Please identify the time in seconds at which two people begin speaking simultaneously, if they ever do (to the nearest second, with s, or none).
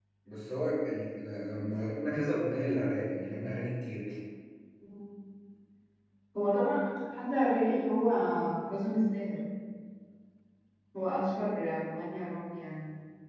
none